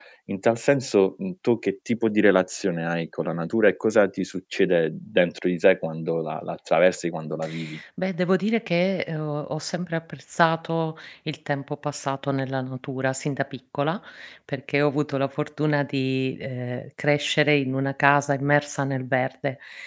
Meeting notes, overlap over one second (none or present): none